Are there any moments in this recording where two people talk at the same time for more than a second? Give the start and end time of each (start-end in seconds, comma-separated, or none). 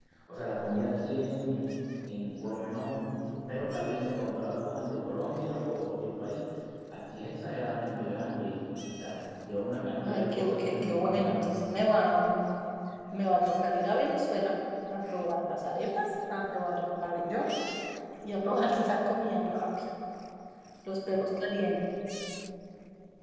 10.0-11.6